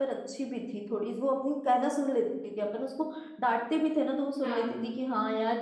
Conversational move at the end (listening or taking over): listening